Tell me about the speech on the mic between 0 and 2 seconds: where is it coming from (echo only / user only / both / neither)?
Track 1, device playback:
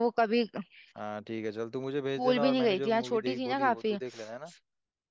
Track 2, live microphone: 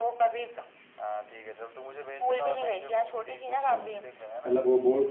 echo only